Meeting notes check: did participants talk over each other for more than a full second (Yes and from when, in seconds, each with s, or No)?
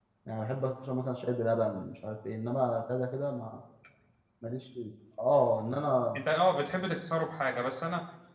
No